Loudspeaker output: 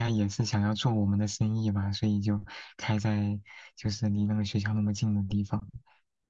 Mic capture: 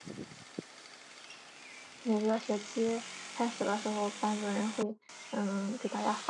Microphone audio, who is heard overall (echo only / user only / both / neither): user only